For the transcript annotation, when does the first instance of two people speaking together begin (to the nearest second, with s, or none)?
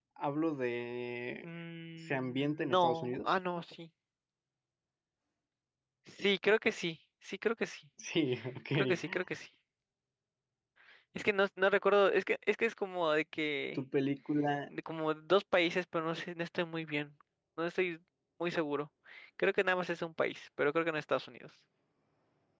2 s